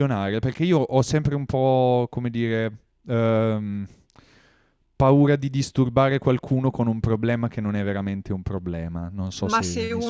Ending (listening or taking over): taking over